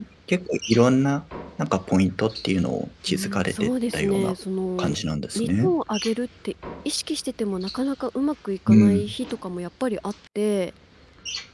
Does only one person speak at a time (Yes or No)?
No